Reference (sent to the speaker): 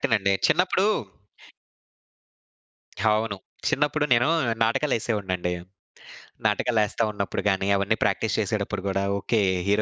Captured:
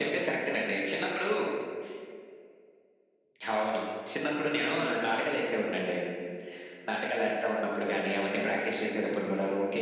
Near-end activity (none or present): none